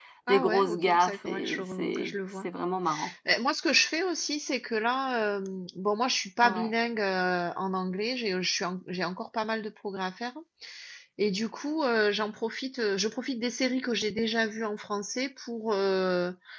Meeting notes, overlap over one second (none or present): present